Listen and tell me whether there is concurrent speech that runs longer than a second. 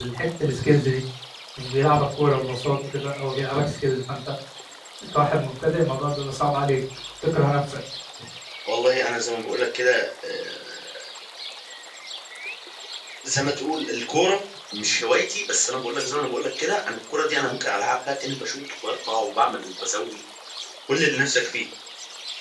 No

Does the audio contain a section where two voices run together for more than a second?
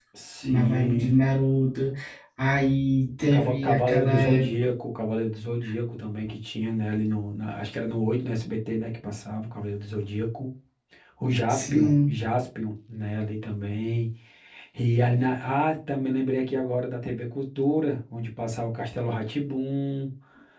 Yes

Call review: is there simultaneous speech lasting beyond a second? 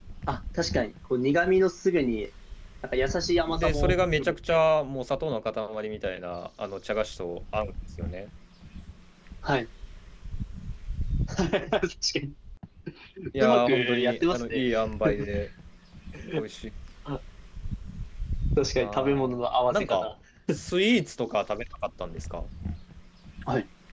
Yes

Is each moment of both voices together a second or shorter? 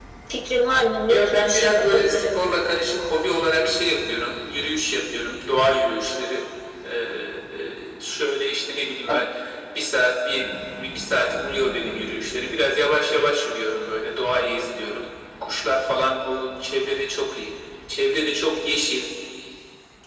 No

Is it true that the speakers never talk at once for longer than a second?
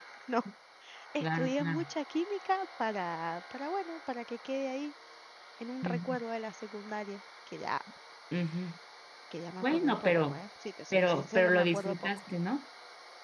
No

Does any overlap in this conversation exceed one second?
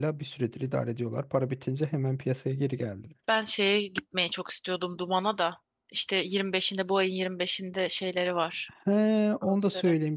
No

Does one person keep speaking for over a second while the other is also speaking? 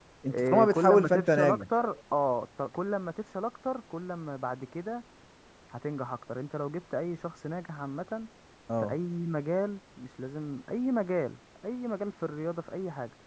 Yes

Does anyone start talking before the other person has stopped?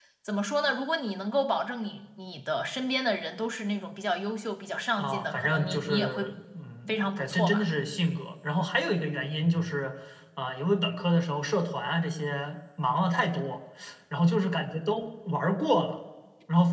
Yes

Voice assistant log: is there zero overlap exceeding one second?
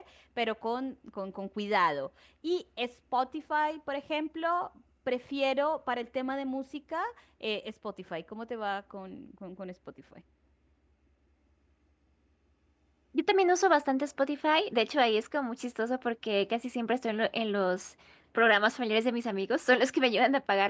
Yes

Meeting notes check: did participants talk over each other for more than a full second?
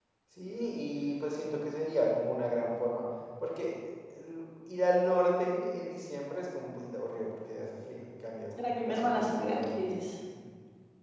Yes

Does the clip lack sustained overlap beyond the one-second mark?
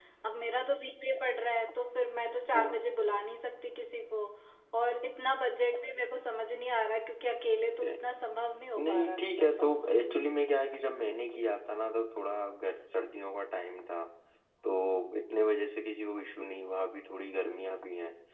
No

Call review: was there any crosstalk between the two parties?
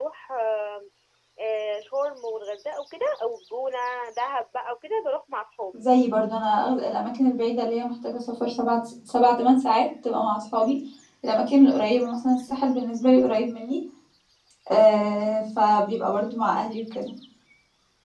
No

